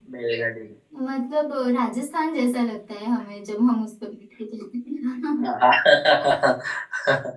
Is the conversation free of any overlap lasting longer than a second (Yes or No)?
Yes